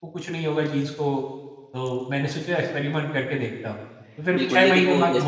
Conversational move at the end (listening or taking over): taking over